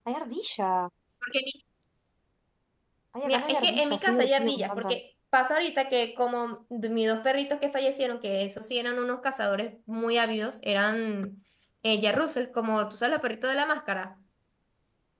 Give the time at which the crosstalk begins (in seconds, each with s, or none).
3.2 s